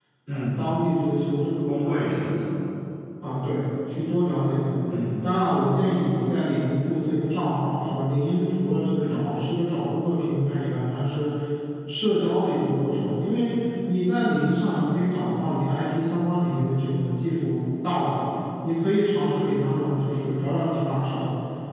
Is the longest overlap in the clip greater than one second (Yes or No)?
No